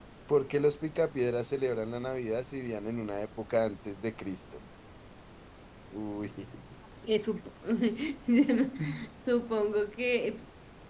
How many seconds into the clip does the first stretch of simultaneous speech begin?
none

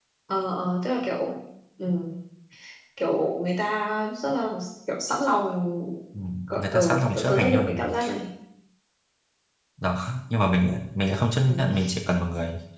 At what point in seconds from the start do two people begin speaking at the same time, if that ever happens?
6.6 s

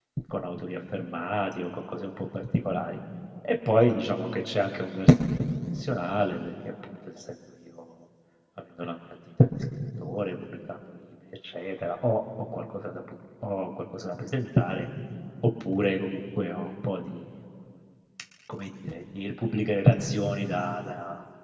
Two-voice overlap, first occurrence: none

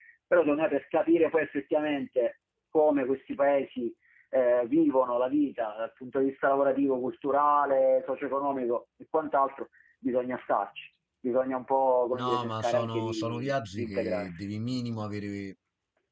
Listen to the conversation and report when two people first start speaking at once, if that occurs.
12.1 s

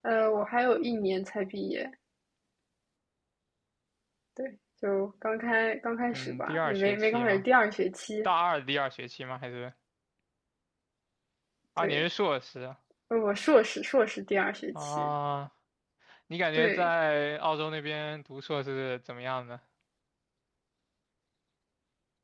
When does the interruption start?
6.1 s

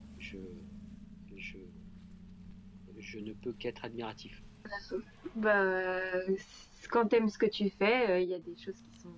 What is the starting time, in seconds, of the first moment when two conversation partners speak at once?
none

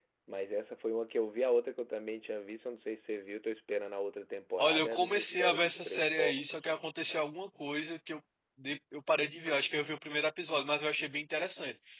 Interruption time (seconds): 4.6 s

